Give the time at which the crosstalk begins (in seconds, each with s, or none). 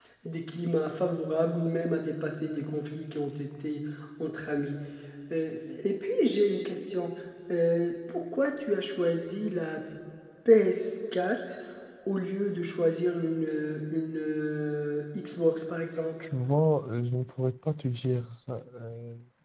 none